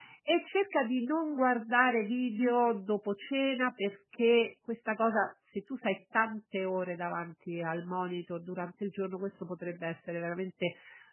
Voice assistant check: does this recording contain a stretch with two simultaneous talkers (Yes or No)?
No